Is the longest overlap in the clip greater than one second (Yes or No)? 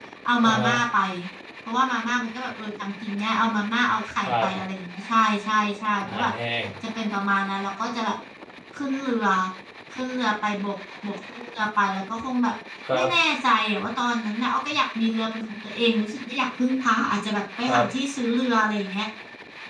No